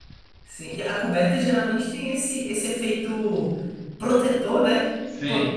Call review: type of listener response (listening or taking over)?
listening